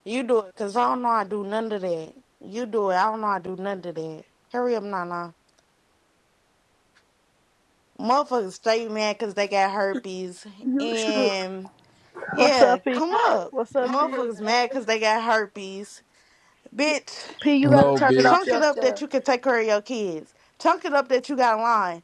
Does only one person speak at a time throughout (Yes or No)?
No